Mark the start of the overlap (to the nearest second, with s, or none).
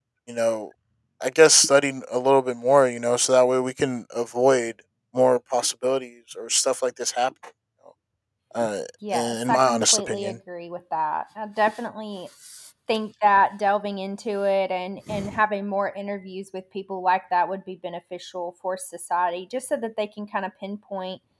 9 s